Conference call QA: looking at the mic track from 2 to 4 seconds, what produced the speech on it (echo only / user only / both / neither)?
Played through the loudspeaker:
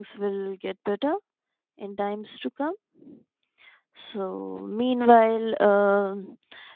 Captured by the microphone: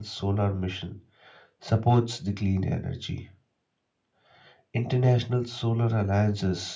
user only